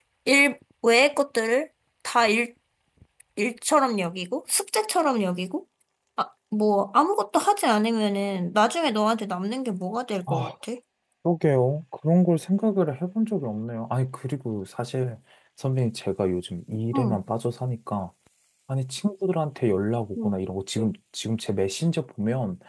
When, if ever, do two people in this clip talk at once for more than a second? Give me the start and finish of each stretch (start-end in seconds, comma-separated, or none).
none